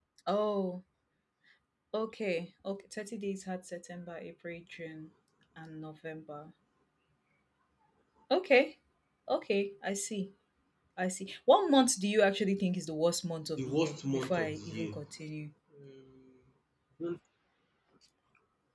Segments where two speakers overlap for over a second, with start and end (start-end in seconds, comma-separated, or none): 13.6-14.9